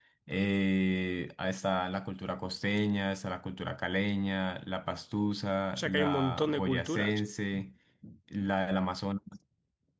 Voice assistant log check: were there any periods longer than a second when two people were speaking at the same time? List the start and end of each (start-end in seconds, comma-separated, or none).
5.8-7.2